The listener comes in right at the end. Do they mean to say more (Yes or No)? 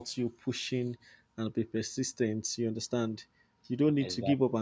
No